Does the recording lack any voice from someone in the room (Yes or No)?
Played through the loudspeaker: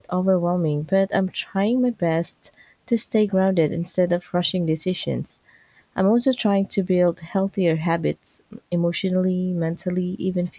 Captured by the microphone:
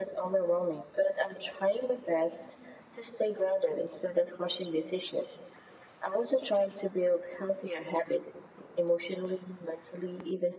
Yes